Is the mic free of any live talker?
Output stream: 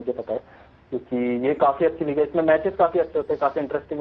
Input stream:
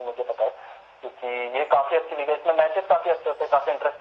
Yes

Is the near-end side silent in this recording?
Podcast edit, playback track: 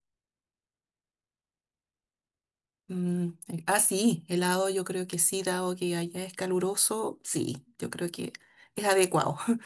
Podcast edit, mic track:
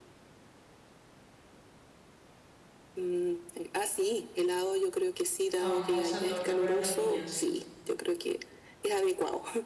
No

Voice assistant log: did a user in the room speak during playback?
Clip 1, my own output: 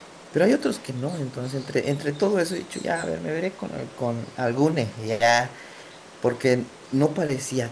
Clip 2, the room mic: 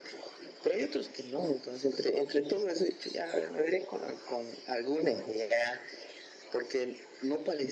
No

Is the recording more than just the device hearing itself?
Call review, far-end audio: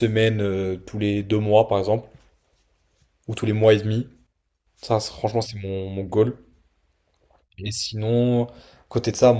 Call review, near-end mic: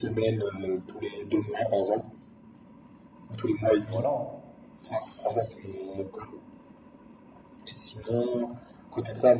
Yes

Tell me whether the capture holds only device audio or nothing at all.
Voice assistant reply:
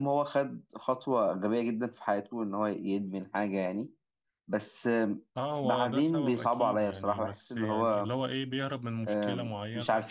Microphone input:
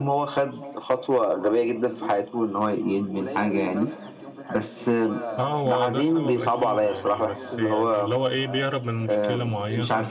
No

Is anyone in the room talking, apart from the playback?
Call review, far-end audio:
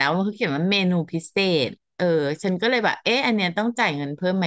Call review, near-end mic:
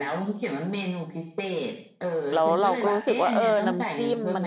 Yes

